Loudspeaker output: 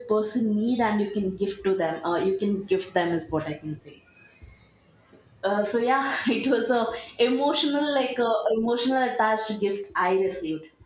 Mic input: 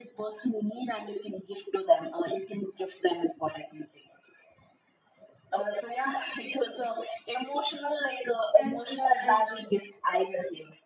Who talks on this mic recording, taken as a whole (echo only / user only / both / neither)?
both